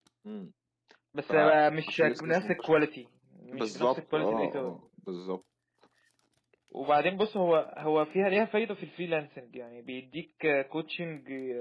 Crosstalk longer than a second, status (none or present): present